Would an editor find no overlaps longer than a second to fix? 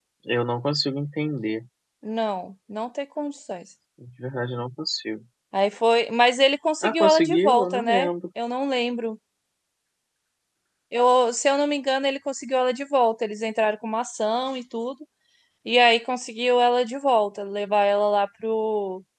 No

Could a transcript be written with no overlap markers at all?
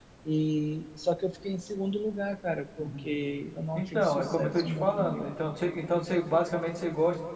No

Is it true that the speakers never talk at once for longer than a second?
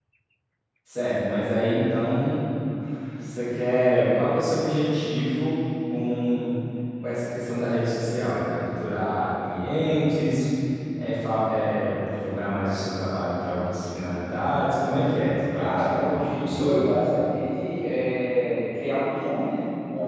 No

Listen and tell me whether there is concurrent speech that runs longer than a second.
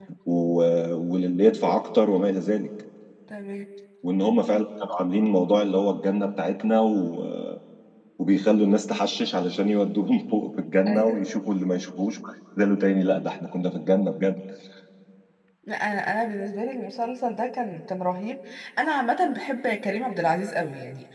No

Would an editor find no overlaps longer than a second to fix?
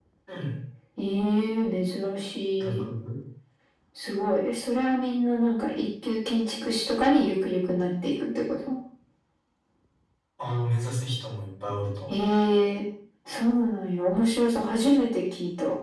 Yes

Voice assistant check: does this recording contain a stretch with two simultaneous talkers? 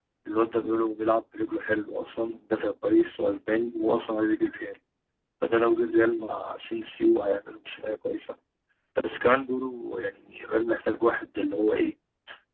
No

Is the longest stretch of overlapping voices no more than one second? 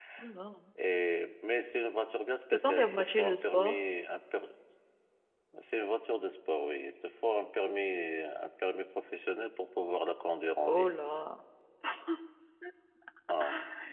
No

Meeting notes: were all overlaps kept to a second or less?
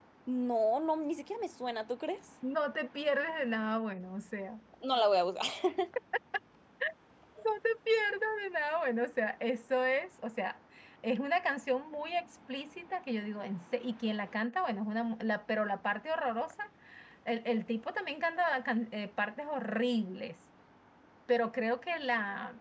Yes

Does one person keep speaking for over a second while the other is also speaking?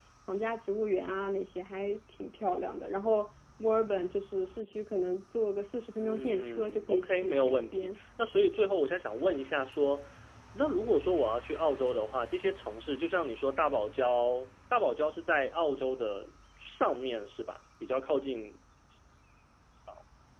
Yes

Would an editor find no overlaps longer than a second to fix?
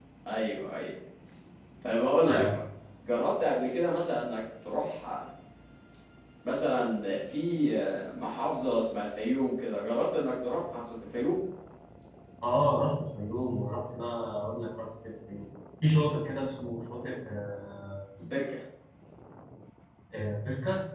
Yes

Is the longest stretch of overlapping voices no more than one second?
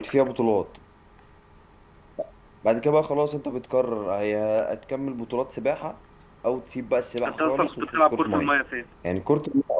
No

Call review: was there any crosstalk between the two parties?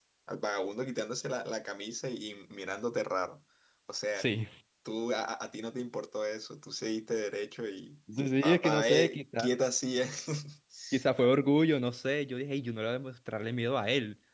Yes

